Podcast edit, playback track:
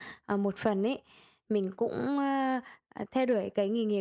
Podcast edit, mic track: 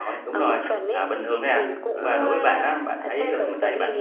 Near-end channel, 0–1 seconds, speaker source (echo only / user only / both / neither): both